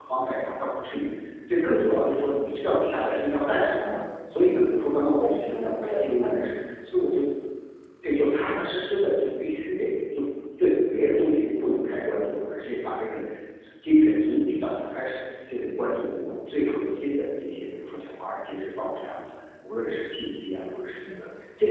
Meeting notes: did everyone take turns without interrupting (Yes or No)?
No